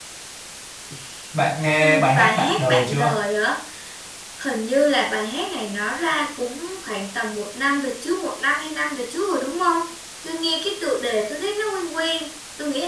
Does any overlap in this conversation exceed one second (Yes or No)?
Yes